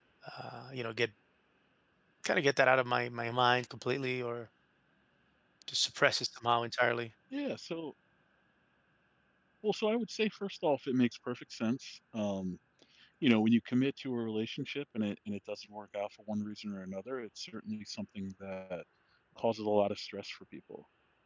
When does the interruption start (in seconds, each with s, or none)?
none